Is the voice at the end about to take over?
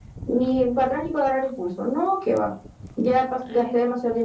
No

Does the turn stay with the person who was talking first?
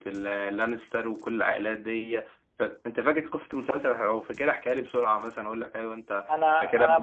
No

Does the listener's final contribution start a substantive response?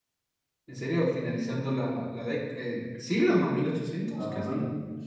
Yes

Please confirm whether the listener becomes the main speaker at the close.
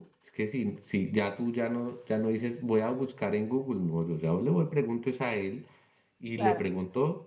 No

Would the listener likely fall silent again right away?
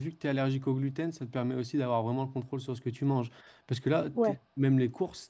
Yes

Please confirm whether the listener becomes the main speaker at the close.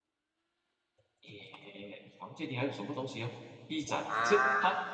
No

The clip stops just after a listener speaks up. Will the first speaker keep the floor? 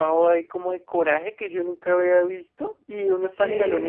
Yes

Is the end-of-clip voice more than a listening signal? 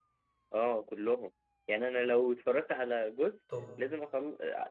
No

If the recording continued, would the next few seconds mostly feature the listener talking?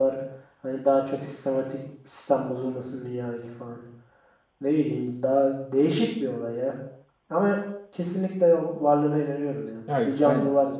Yes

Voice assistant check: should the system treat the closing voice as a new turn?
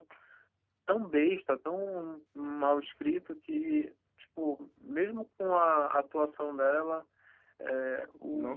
No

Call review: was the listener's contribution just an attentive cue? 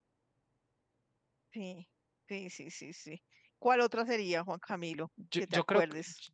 No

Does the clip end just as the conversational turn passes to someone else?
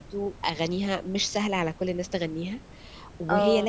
No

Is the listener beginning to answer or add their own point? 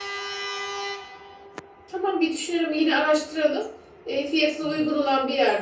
No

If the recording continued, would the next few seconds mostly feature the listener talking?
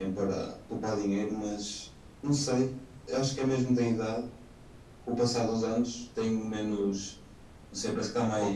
No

